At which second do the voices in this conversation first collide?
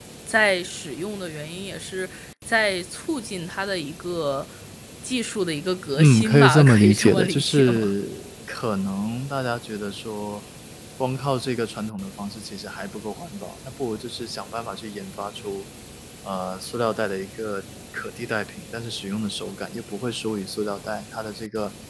5.9 s

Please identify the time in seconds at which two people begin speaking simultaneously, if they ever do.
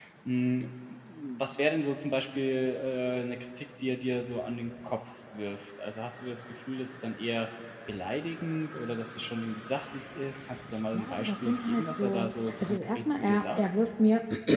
10.9 s

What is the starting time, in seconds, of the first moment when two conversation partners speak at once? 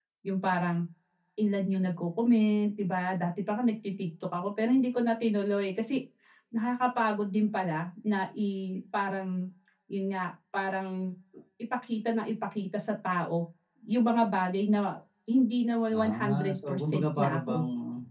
15.9 s

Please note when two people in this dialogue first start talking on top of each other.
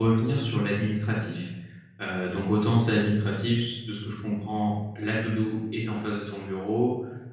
none

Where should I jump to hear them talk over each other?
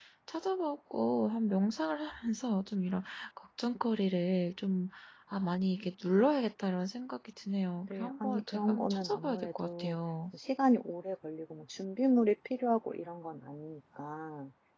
7.9 s

